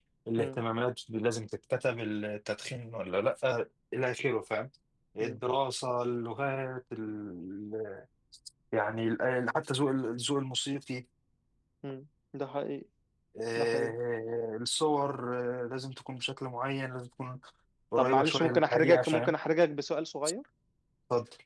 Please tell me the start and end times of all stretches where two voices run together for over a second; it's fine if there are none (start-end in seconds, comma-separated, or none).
18.0-19.3